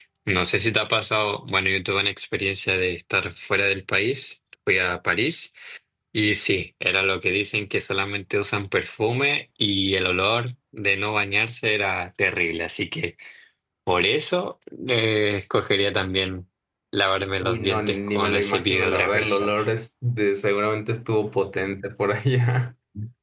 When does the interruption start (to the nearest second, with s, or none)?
17 s